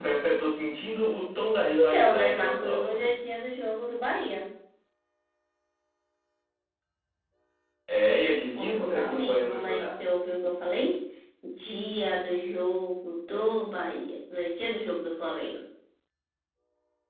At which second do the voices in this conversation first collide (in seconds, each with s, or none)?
1.8 s